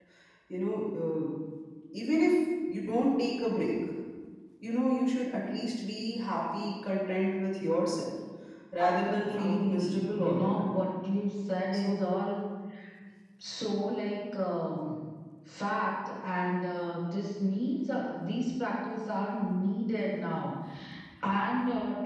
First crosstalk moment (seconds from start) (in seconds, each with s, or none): 8.8 s